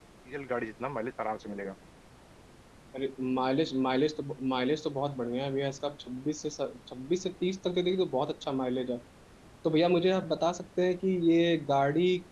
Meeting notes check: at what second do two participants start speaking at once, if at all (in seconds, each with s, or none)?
none